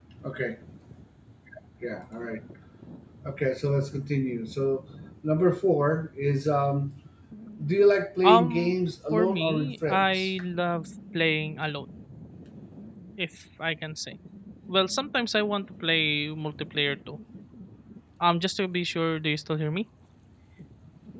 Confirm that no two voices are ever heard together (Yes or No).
No